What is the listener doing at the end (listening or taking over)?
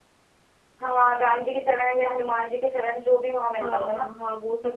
taking over